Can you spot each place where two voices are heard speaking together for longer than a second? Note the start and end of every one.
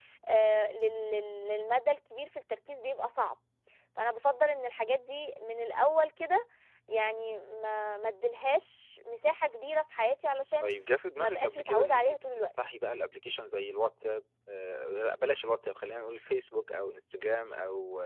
11.2-12.5

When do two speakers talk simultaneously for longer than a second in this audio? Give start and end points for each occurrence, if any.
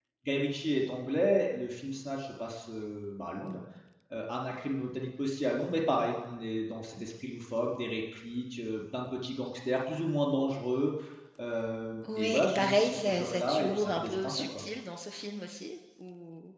12.2-14.6

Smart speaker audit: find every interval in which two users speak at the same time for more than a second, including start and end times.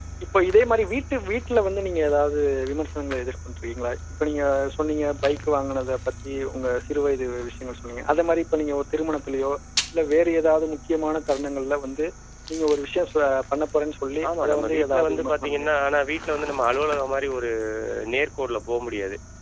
14.3-15.7

